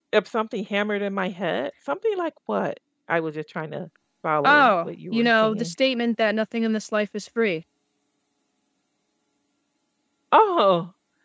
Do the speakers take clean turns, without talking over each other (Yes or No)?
No